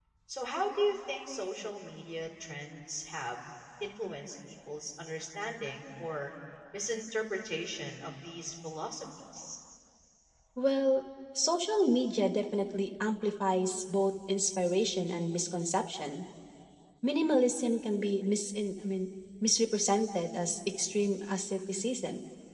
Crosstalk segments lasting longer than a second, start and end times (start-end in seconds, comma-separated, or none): none